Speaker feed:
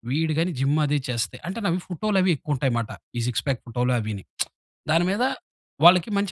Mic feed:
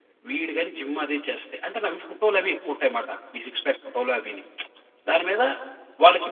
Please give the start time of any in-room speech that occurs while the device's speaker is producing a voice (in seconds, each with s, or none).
none